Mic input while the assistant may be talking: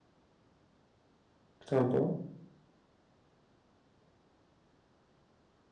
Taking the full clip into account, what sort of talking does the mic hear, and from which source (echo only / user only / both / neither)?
user only